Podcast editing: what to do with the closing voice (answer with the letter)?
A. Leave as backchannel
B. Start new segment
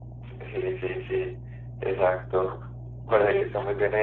A